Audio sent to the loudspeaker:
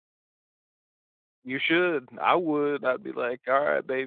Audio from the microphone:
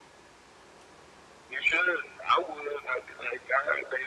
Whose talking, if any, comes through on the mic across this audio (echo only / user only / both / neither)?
echo only